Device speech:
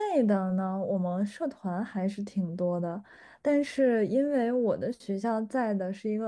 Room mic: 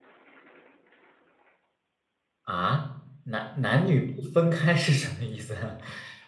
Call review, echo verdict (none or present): none